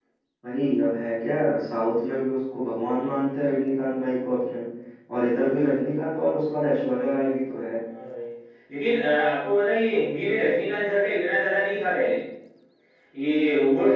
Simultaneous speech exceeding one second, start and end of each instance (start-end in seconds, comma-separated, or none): none